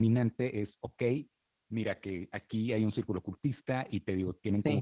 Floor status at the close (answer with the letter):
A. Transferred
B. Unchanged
B